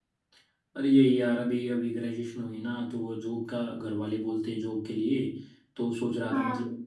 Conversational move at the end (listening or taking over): listening